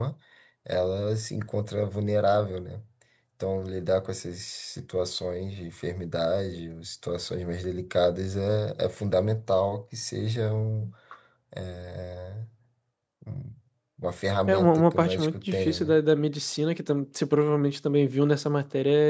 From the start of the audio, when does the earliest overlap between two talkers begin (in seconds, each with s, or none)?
14.5 s